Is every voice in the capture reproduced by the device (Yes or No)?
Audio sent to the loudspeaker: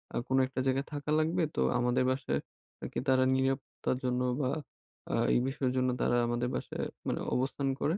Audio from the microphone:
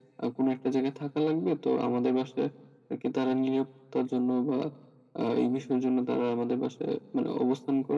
Yes